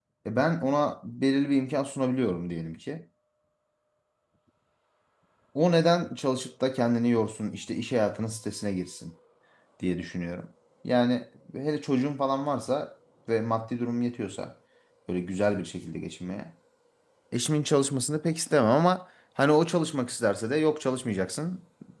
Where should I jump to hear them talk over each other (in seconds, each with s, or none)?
none